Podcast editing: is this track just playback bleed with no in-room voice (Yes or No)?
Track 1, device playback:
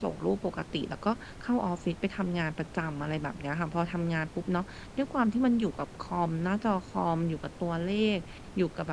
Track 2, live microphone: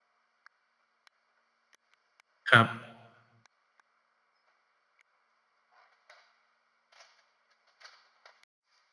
No